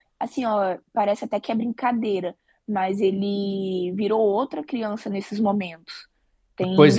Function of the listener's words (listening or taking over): taking over